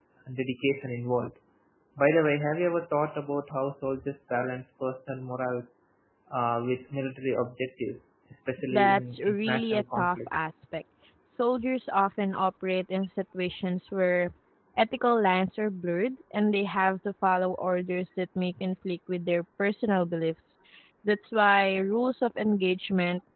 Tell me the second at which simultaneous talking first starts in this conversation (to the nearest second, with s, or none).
9 s